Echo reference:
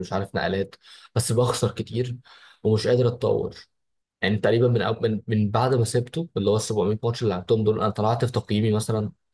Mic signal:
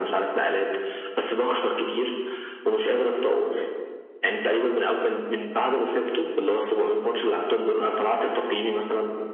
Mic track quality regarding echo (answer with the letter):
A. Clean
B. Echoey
B